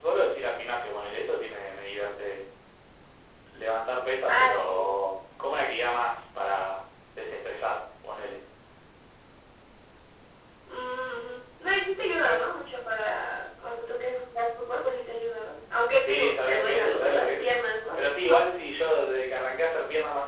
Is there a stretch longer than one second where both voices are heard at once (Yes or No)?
Yes